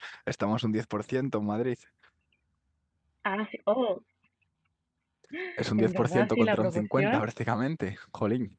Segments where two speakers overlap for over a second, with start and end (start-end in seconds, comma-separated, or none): 5.8-7.2